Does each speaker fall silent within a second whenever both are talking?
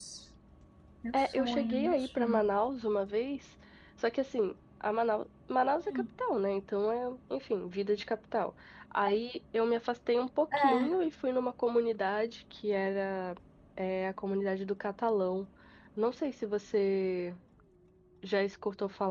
No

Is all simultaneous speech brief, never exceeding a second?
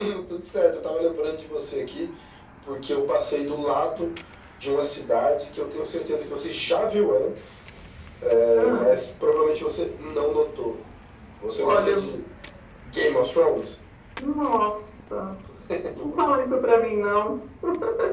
Yes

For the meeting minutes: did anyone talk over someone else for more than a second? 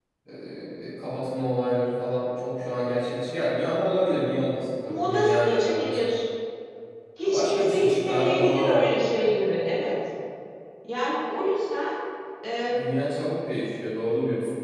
Yes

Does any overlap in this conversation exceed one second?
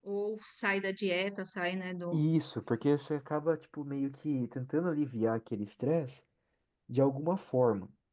No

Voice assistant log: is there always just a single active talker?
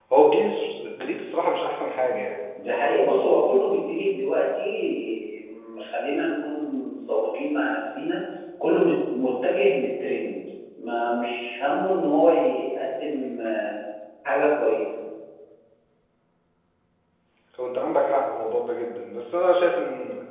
Yes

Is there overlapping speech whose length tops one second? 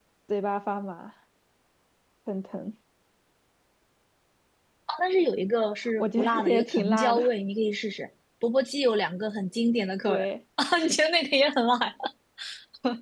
Yes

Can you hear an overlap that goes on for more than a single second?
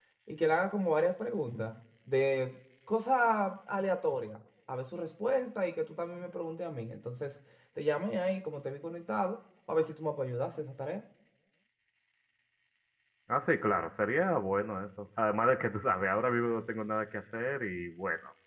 No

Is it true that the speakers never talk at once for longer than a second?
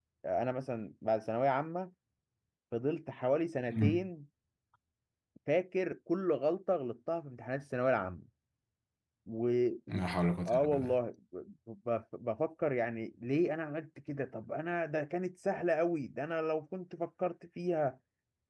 Yes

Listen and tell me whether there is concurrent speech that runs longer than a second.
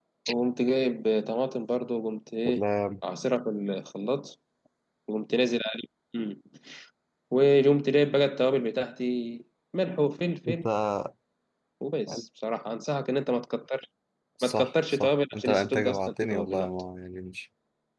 Yes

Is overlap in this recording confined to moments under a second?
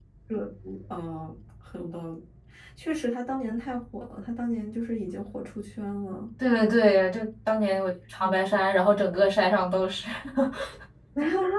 Yes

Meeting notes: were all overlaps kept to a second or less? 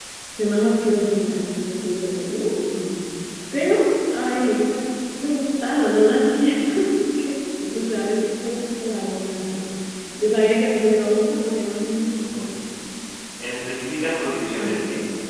Yes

